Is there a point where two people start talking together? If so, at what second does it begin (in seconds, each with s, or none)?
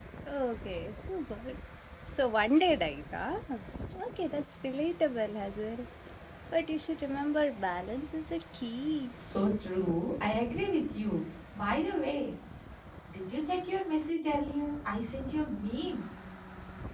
none